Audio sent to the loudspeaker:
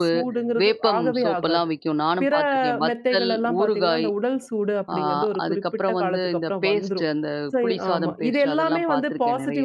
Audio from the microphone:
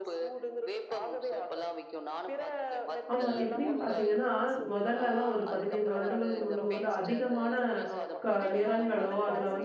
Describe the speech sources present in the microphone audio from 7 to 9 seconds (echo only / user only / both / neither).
both